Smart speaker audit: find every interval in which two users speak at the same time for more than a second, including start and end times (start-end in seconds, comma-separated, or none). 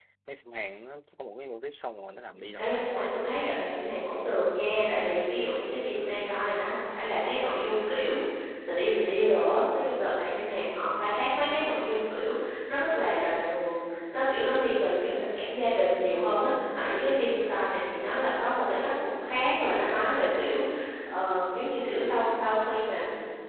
2.3-3.7